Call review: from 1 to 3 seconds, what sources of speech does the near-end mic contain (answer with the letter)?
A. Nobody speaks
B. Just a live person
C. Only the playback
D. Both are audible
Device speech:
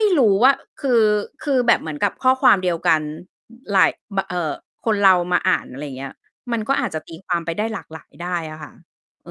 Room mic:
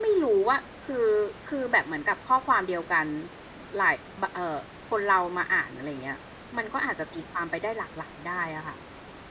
C